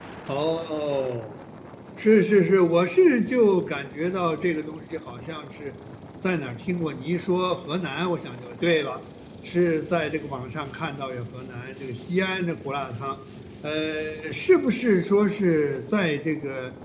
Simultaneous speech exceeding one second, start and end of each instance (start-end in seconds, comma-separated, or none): none